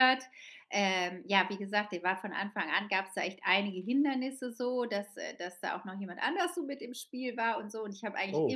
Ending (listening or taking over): listening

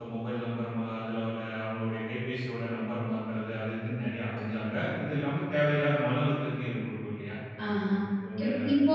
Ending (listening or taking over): taking over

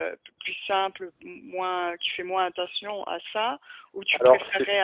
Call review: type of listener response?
taking over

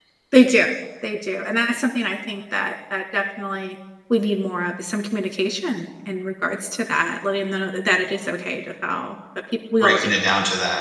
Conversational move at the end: taking over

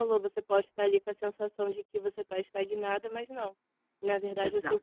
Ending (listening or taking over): listening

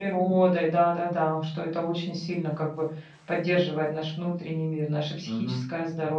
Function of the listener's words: taking over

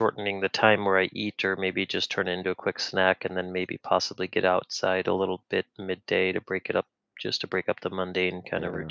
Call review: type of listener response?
taking over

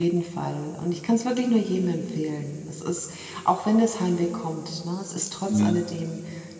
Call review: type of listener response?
listening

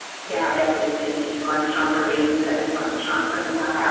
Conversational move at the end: listening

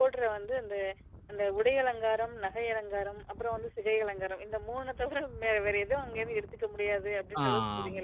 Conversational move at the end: taking over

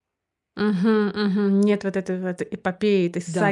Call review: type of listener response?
taking over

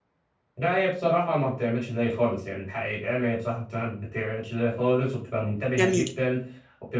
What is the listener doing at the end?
listening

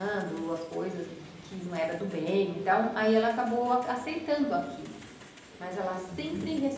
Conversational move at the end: listening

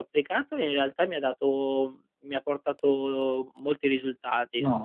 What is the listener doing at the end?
taking over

